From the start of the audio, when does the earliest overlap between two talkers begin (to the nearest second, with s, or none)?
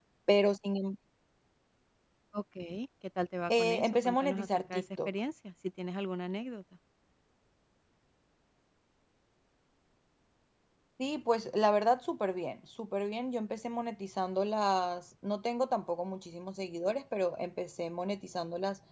3 s